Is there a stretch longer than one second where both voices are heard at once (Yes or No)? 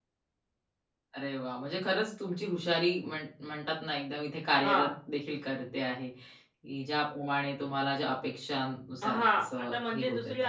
Yes